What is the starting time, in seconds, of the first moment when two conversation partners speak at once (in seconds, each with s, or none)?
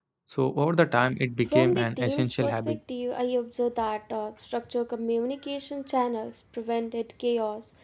1.4 s